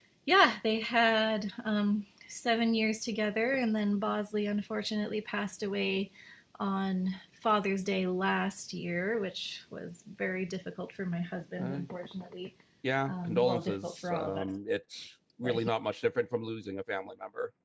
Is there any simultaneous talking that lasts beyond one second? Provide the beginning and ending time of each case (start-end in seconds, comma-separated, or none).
13.1-14.5